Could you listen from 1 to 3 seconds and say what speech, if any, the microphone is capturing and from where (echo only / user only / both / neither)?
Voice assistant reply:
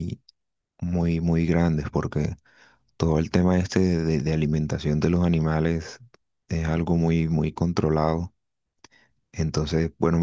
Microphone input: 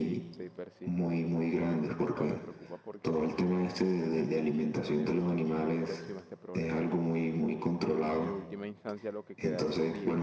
both